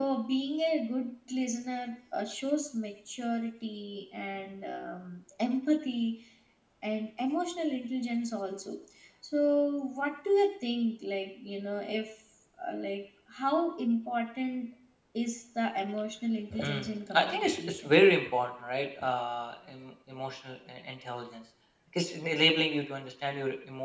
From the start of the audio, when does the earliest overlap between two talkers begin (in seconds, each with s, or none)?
16.5 s